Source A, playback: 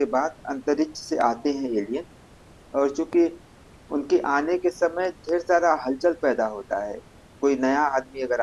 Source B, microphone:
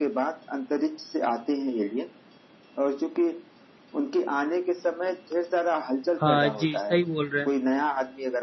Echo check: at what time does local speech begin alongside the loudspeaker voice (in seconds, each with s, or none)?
6.2 s